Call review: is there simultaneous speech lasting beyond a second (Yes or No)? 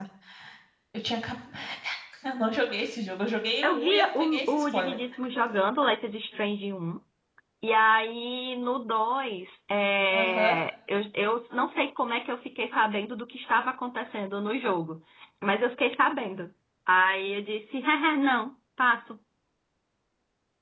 Yes